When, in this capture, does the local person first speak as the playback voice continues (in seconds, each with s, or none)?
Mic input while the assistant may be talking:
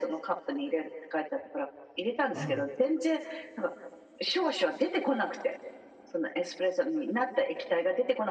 2.3 s